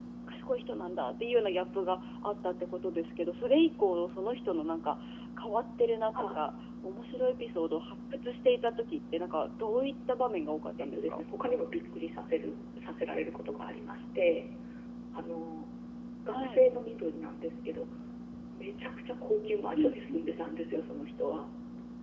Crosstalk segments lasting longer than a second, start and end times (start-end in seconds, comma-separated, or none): none